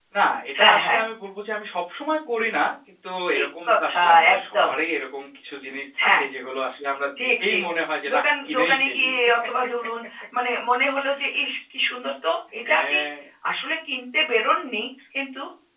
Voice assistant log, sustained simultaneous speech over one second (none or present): present